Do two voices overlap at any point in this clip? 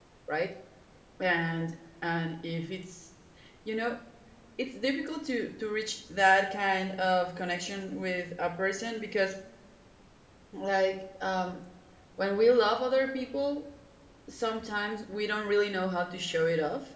No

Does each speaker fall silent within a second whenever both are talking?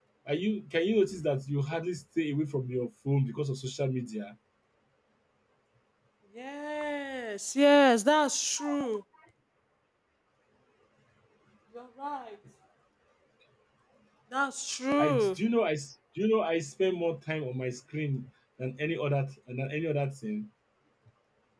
Yes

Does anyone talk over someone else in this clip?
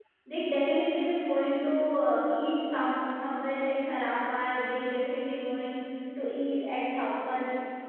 No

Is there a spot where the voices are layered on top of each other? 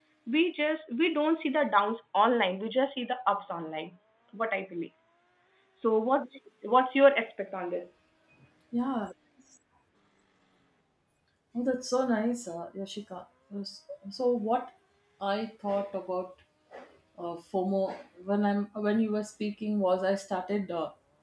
No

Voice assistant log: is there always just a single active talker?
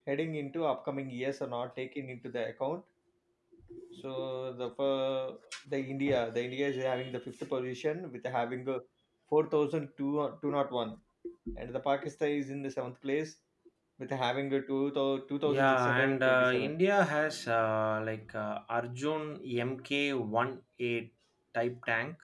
No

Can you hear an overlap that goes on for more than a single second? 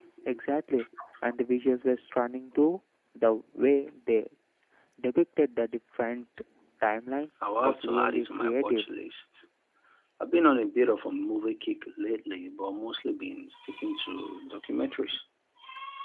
Yes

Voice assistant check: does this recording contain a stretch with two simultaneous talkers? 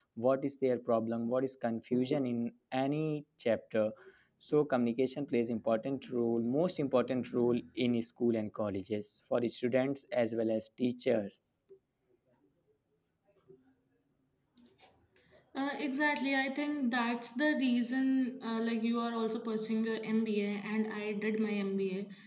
No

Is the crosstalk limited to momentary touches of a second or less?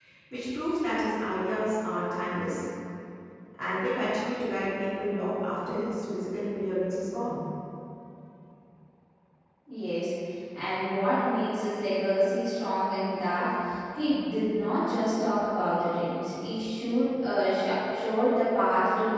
Yes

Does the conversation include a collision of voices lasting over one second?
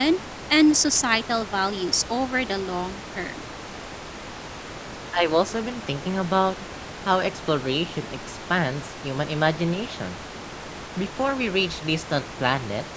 No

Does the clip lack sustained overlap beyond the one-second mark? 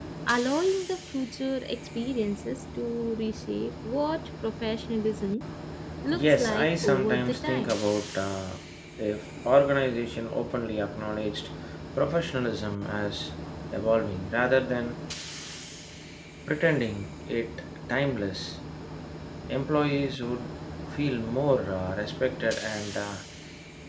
No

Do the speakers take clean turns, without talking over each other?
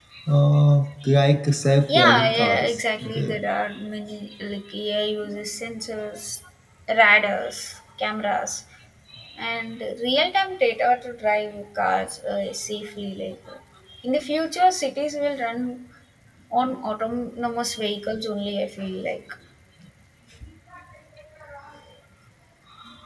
No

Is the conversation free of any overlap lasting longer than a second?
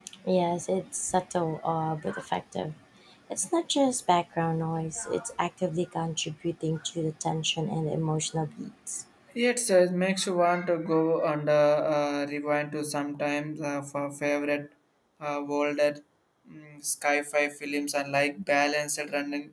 Yes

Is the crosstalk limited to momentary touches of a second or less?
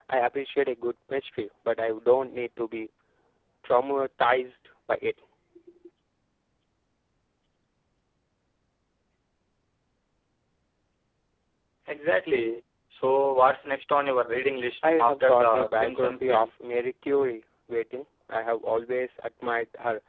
No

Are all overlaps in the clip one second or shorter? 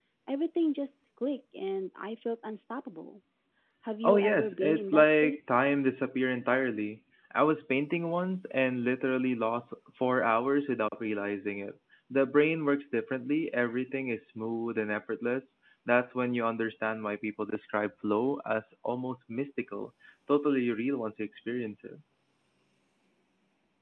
No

